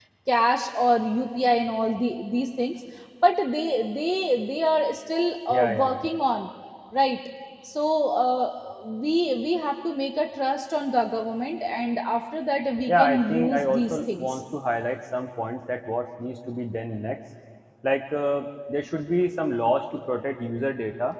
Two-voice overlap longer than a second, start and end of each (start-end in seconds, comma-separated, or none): 12.9-14.4